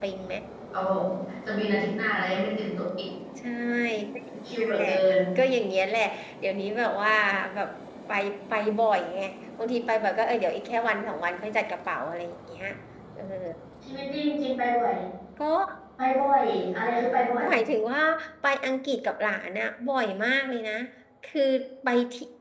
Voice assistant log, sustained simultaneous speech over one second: none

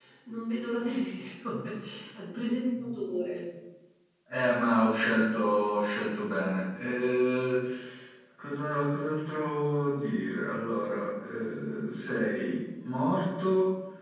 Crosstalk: none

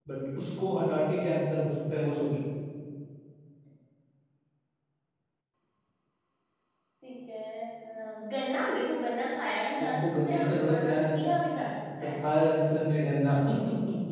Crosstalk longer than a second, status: present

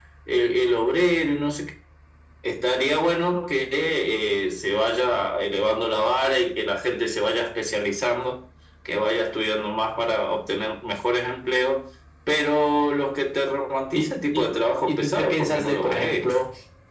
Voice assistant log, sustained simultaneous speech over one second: present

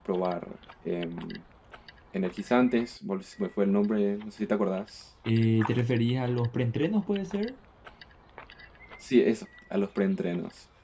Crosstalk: none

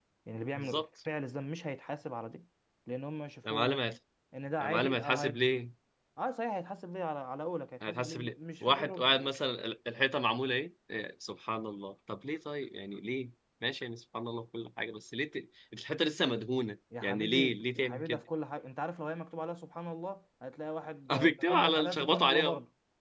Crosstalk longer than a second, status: present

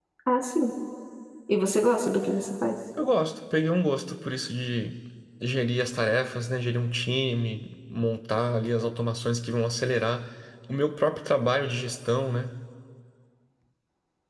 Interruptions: none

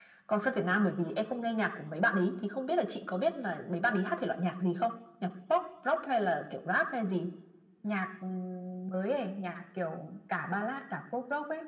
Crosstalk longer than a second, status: none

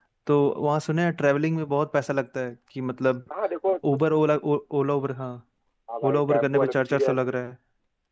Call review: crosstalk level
present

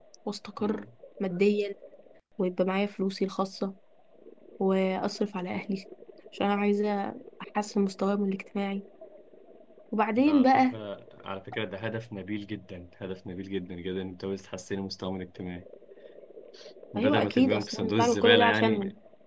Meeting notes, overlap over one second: present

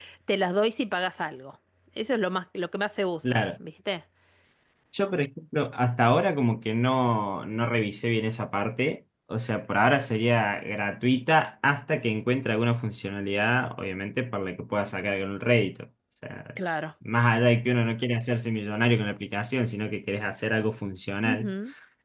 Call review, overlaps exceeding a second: none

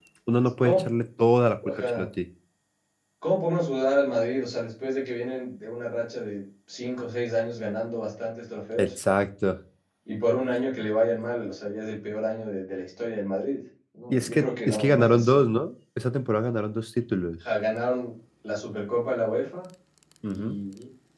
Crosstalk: present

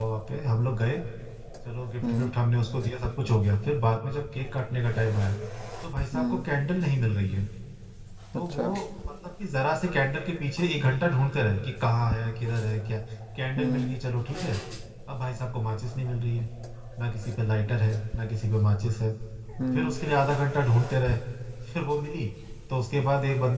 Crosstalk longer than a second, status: none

